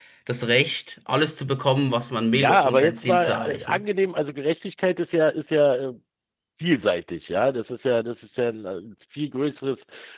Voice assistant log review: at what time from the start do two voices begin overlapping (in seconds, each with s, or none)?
2.3 s